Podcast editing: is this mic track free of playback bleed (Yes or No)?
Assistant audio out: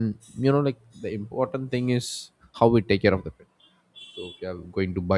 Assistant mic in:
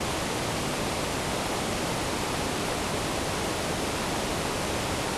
Yes